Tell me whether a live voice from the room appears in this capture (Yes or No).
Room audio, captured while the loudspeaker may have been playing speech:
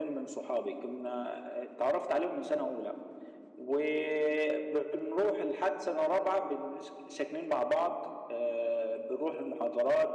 No